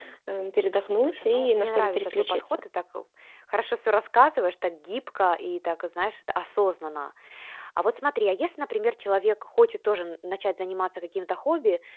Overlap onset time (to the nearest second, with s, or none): 1 s